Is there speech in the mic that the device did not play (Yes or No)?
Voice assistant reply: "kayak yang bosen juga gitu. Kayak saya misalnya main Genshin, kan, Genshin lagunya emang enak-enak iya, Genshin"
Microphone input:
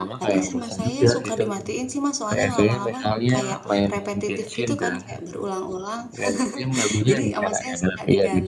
Yes